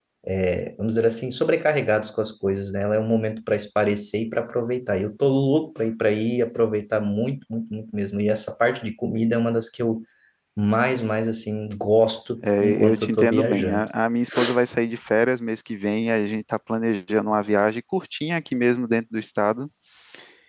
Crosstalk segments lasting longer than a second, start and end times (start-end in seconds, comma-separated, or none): 12.4-13.9